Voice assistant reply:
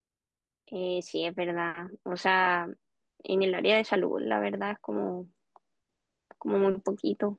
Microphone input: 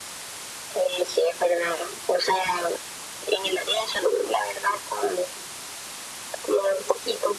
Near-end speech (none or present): none